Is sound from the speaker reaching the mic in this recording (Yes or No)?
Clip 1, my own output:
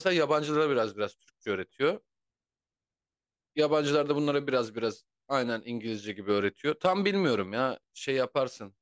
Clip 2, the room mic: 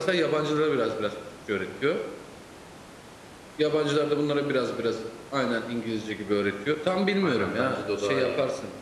Yes